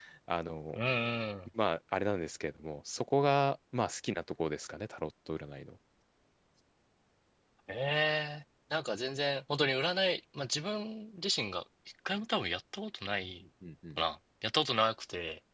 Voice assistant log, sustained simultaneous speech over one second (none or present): none